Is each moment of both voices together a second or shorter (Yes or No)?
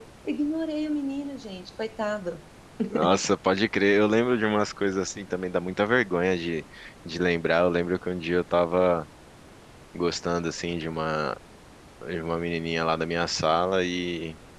Yes